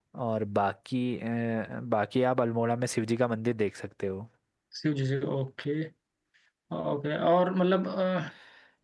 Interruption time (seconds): none

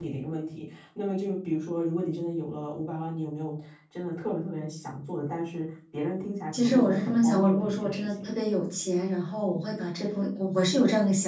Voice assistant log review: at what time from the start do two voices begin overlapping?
6.5 s

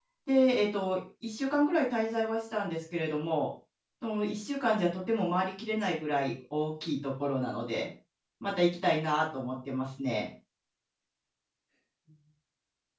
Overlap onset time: none

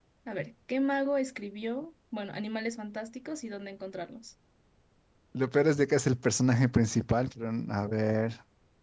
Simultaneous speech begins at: none

